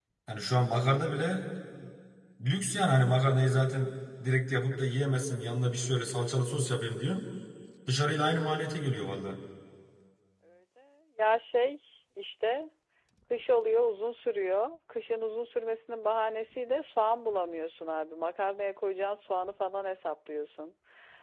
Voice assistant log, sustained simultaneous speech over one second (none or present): none